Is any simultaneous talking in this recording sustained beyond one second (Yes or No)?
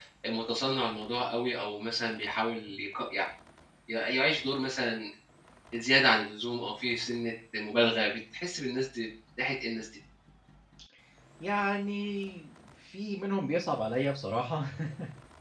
No